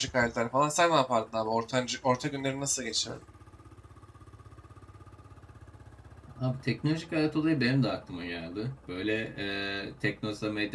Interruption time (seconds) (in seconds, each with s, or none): none